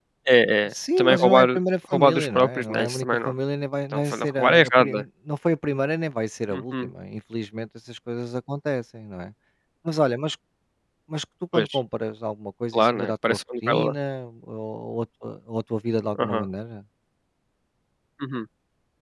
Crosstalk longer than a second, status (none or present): present